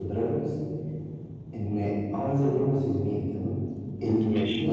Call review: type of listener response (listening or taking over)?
listening